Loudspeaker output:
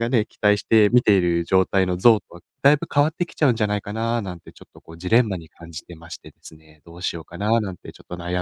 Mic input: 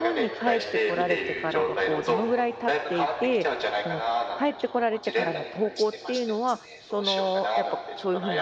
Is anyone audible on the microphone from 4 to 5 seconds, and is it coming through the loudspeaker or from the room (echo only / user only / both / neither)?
both